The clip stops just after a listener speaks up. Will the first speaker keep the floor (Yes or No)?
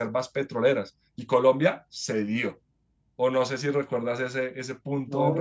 No